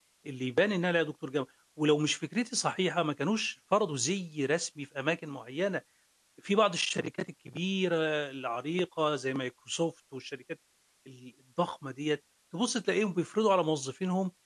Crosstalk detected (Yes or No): No